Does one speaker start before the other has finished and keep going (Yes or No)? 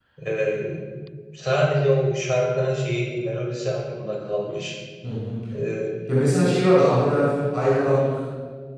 No